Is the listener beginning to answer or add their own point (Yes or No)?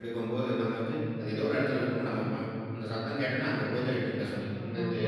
No